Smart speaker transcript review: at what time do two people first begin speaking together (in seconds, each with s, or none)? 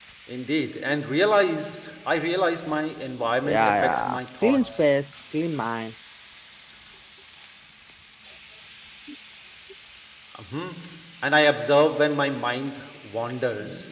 3.4 s